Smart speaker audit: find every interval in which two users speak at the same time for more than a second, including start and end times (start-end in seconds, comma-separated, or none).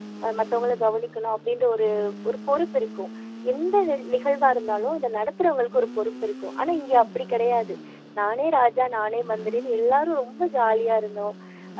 none